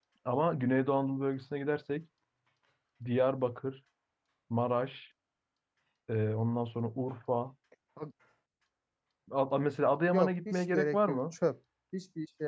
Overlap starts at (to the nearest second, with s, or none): 10 s